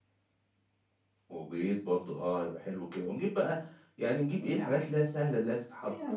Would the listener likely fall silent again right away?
No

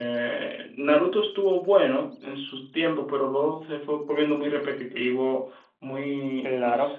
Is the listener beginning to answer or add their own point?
No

